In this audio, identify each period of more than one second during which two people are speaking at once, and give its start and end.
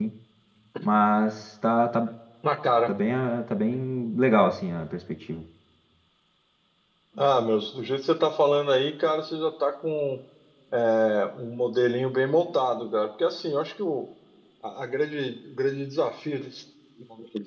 none

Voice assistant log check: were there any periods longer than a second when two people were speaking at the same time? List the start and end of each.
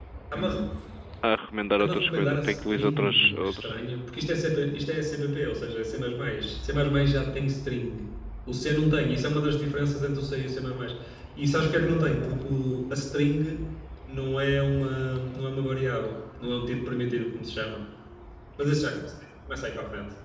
1.8-3.7

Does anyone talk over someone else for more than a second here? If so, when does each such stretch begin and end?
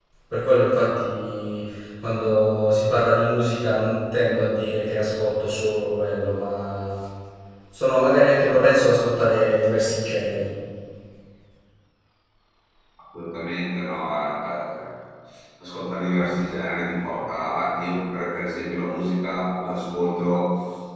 none

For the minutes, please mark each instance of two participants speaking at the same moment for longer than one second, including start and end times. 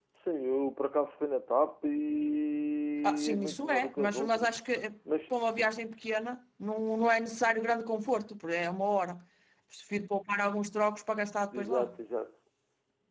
3.0-4.5

